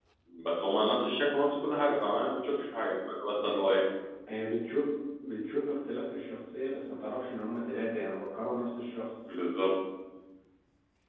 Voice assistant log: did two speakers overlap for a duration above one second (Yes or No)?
No